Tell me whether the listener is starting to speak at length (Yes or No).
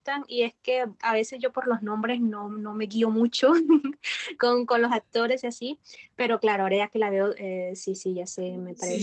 Yes